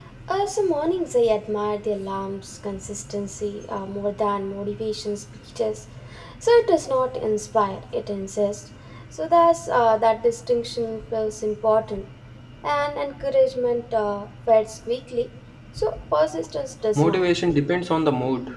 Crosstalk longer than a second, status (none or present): none